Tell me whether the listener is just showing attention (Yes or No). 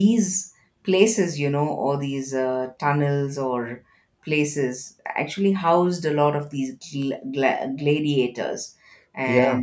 Yes